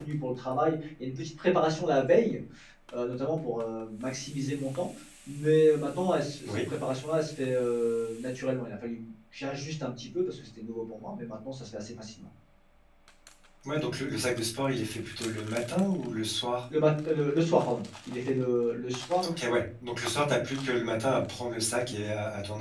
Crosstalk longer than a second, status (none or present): none